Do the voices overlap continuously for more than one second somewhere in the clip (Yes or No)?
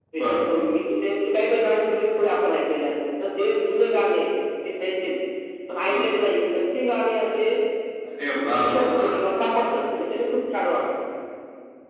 No